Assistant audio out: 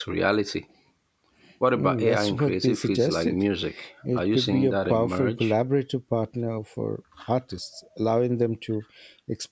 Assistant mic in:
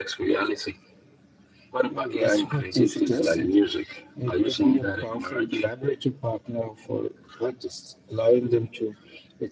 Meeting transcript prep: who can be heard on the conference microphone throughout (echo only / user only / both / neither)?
echo only